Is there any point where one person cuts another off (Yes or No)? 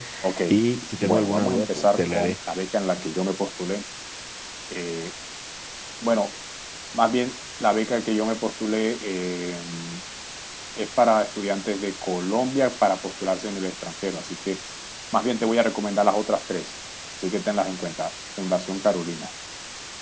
Yes